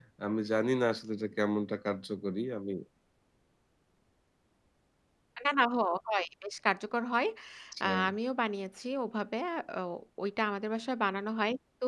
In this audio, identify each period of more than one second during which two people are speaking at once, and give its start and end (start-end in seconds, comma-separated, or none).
none